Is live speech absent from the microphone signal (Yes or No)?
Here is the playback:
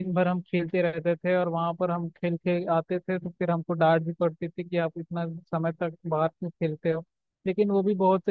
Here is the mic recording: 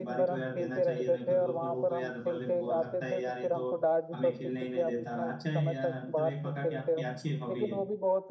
No